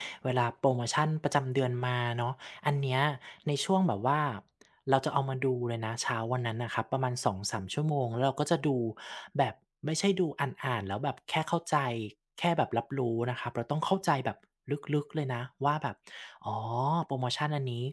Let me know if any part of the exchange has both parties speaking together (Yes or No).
No